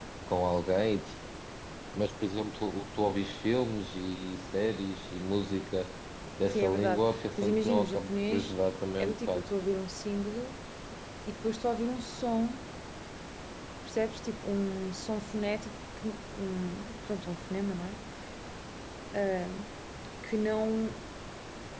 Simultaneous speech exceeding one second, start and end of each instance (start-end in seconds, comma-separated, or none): 6.5-8.5